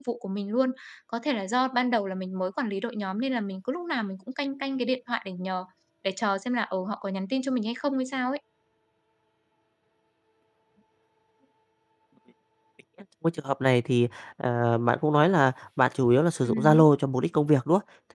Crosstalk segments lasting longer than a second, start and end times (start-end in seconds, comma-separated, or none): none